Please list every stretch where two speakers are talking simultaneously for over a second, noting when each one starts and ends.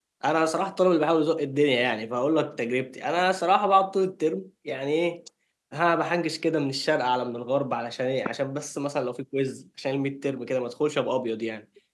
none

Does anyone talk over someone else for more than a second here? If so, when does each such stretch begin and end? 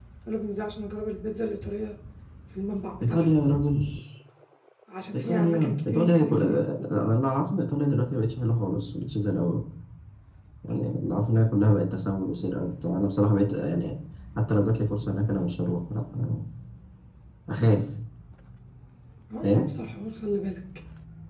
5.1-6.4

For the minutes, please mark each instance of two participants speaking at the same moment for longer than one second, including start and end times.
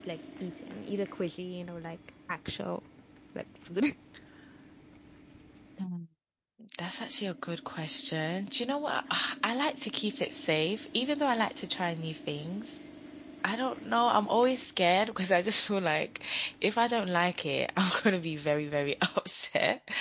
none

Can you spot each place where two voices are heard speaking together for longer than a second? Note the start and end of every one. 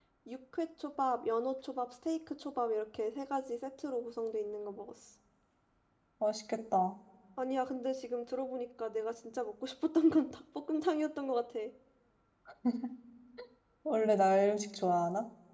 none

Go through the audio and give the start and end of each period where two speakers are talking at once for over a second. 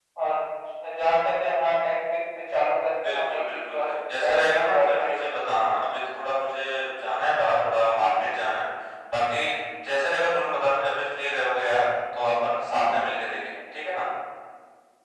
3.0-5.6

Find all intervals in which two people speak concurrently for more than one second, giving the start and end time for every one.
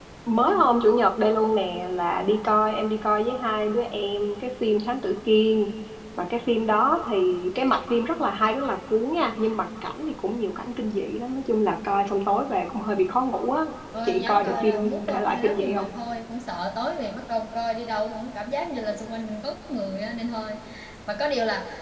14.0-15.9

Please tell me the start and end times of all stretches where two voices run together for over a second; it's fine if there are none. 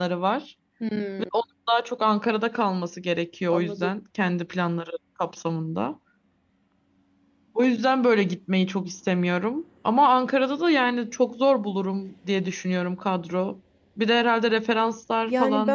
none

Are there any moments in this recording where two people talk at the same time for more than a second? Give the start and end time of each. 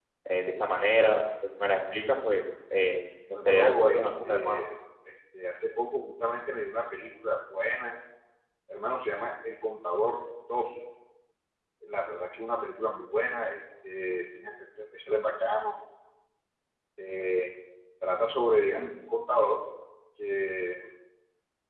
3.3-4.6

